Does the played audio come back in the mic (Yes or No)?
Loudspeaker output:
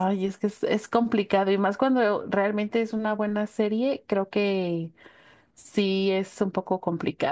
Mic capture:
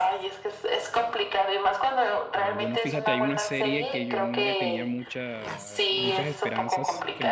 Yes